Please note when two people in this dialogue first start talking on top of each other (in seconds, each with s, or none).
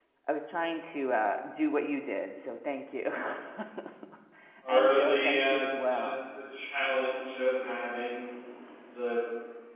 4.7 s